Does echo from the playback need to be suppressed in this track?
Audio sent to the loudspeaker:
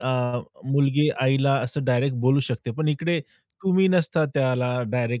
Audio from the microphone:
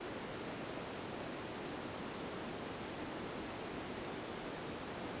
No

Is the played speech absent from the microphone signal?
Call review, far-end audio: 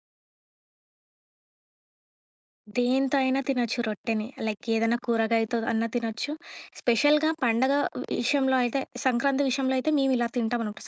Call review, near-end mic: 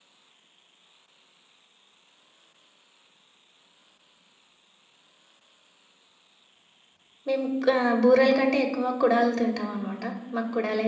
Yes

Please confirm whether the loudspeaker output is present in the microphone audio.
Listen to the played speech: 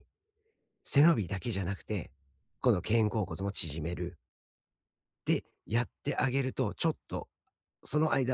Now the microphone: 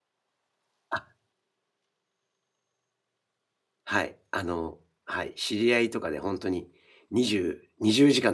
No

